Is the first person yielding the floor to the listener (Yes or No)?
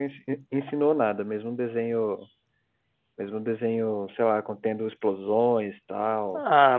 Yes